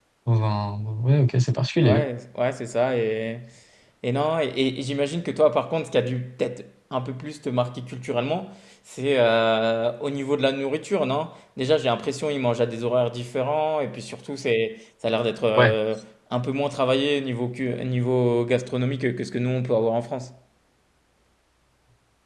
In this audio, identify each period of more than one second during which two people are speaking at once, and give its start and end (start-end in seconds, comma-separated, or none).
none